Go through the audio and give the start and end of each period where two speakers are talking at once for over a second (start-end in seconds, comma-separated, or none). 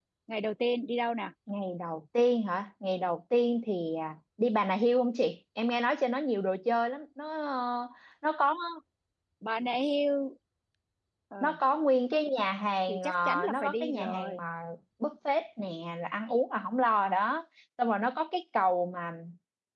12.9-14.4